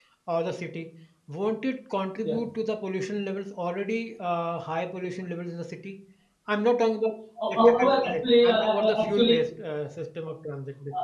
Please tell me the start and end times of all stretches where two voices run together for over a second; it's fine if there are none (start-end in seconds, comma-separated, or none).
7.5-9.3